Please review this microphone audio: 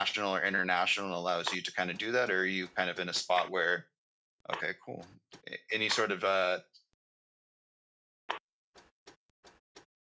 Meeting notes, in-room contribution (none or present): none